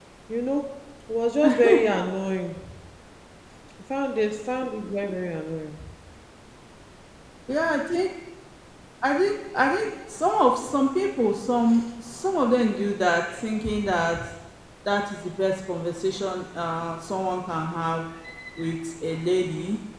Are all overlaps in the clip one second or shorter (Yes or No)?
Yes